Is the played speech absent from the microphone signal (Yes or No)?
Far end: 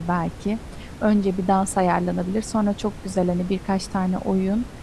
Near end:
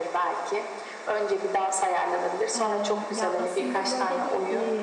No